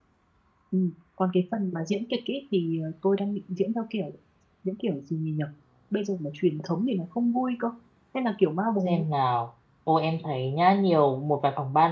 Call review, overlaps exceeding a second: none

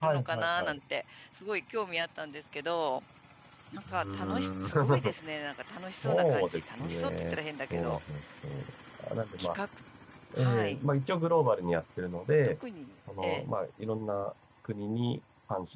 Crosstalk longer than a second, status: present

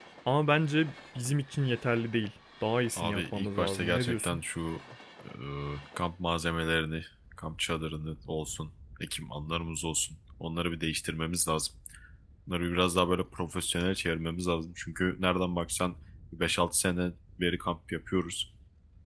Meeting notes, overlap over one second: present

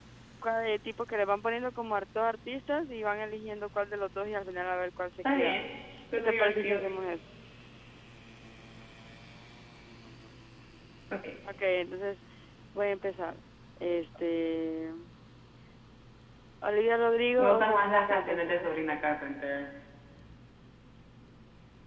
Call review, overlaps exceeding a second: present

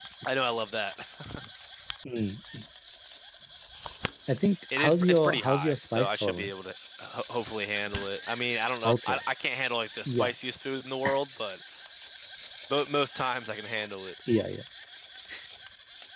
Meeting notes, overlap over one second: present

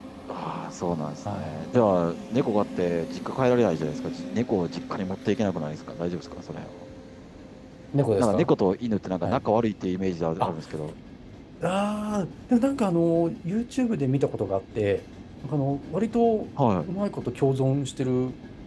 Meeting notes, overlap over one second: none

